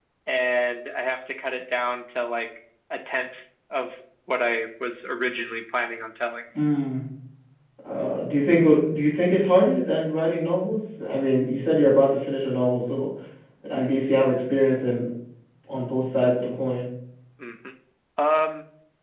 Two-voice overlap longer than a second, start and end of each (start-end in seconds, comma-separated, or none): none